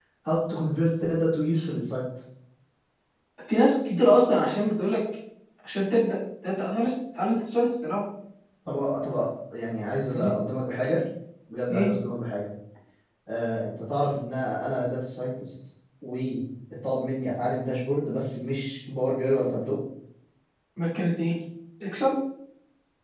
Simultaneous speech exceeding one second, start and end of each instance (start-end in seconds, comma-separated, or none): none